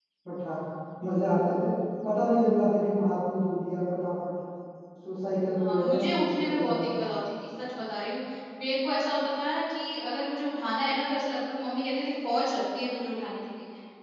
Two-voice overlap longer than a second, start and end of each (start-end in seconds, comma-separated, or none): 5.6-7.1